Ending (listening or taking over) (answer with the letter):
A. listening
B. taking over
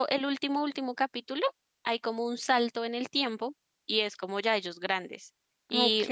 A